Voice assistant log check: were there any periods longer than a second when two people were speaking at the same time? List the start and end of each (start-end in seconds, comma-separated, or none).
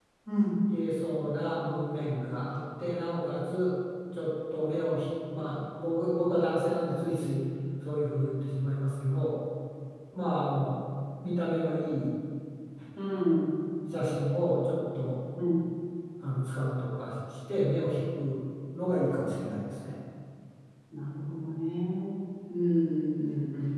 none